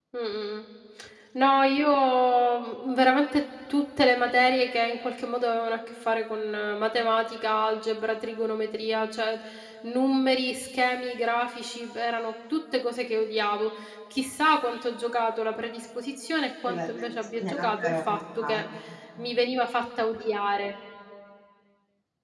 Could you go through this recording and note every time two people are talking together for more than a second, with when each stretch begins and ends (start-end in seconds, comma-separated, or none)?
16.7-18.6